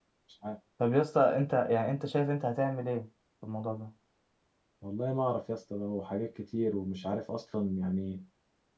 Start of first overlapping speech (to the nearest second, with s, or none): none